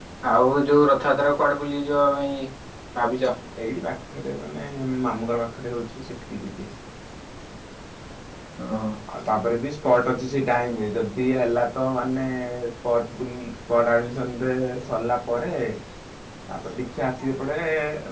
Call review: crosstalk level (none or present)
none